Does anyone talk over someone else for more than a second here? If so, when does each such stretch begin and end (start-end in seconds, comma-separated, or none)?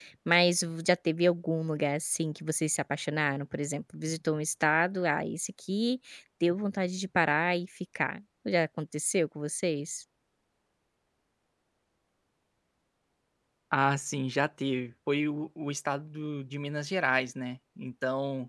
none